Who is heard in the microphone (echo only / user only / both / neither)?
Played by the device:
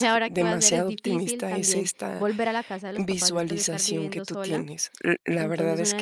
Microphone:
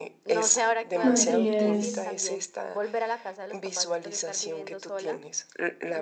both